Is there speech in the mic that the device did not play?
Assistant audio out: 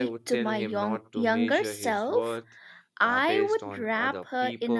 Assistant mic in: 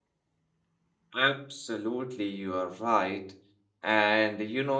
Yes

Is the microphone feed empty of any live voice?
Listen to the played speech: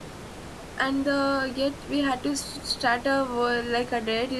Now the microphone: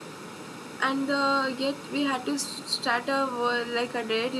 Yes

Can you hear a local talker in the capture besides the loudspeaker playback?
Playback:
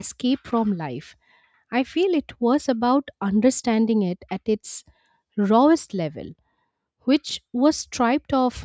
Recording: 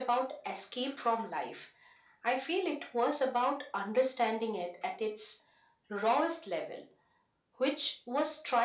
No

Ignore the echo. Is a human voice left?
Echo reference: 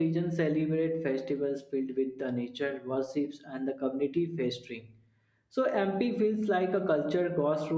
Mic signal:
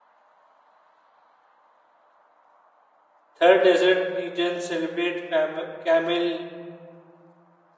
Yes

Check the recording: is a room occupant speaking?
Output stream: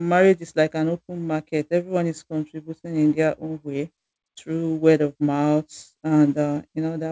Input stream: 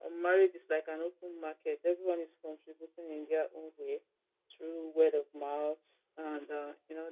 No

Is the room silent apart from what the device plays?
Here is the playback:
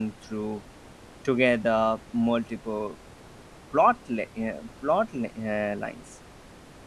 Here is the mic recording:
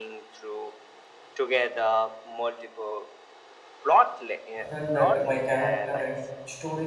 No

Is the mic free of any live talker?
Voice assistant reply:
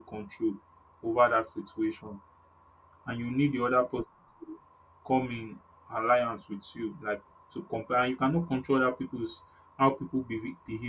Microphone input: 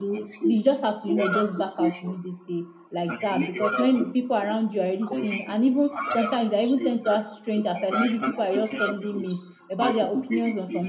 No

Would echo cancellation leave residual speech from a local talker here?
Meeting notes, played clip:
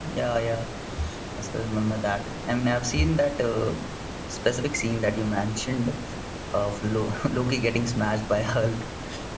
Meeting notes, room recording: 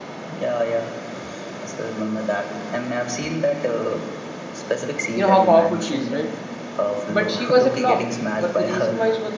Yes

